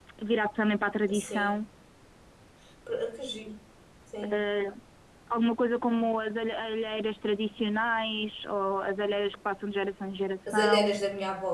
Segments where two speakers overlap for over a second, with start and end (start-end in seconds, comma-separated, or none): none